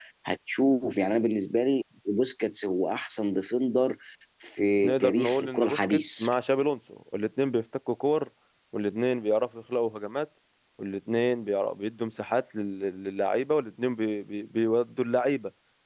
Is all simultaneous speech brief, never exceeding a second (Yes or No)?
No